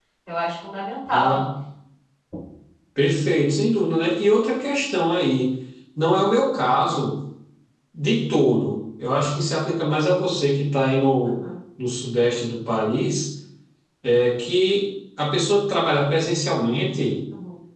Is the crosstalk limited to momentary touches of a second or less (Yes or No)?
Yes